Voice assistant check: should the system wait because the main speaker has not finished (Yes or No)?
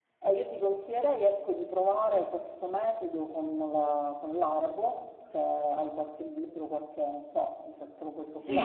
No